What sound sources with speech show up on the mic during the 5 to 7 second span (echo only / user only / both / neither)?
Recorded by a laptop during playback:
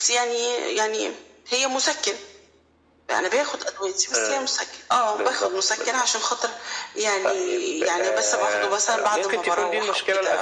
echo only